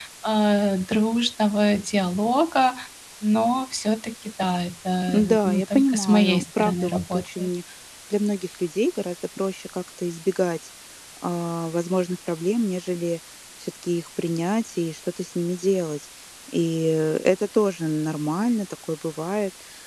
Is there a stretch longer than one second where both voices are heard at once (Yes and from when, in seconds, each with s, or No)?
Yes, from 5.1 s